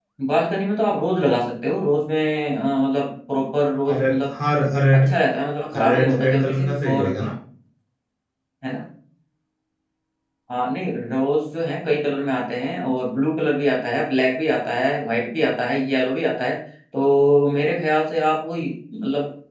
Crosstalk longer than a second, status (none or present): present